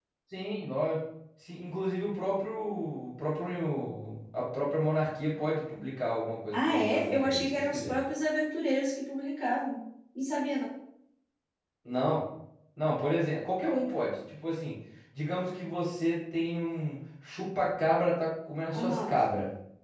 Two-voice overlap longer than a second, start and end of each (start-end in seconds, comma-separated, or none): 6.5-8.0